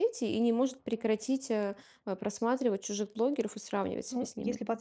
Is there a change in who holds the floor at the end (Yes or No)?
Yes